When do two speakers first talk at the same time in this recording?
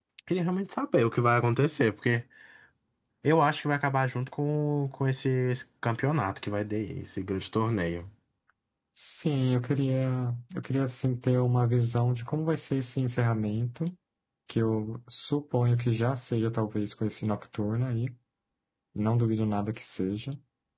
none

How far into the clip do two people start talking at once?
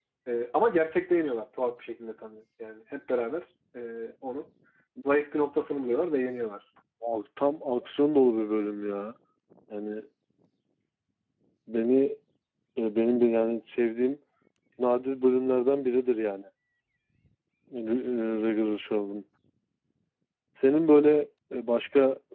none

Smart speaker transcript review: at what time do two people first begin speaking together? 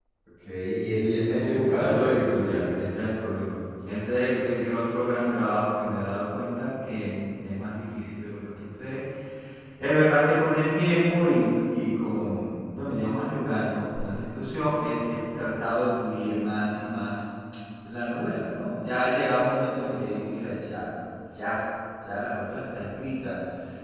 1 s

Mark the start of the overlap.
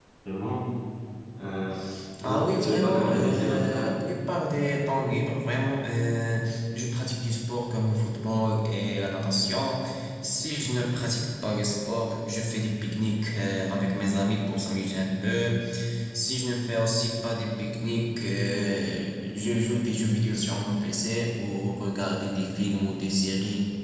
2 s

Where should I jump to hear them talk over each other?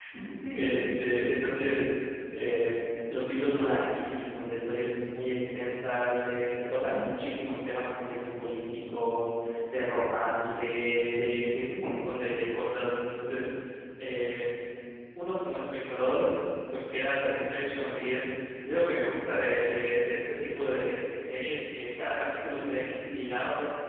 1 s

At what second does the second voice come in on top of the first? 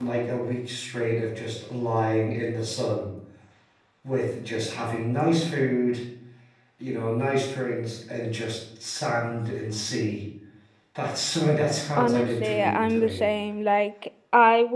12 s

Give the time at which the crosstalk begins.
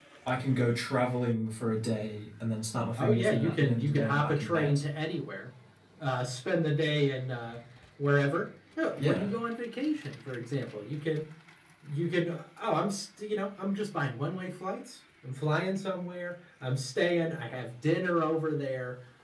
3 s

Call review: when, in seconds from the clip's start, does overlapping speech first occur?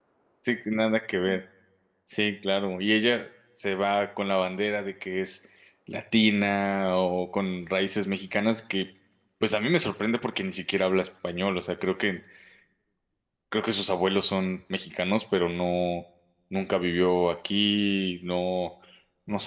none

